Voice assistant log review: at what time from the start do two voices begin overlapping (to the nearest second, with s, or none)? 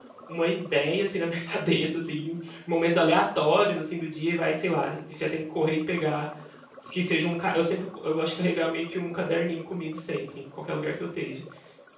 none